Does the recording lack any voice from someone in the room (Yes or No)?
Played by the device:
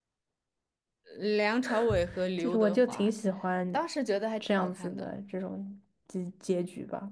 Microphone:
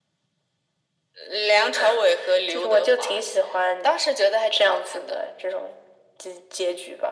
Yes